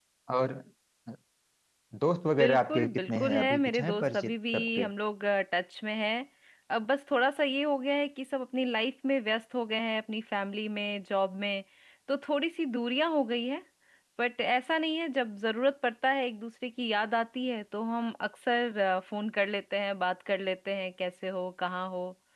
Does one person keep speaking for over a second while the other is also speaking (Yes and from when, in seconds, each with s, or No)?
Yes, from 2.4 s